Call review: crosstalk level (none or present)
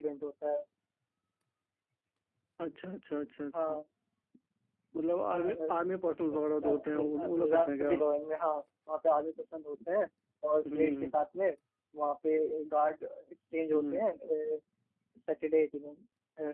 present